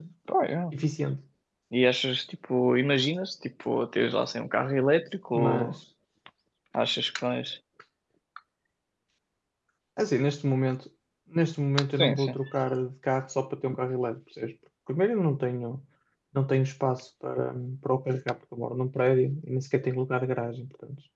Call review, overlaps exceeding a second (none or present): none